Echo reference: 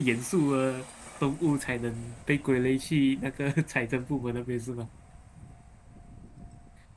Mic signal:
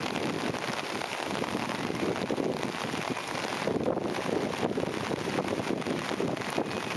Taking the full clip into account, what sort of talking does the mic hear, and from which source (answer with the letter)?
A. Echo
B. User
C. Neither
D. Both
C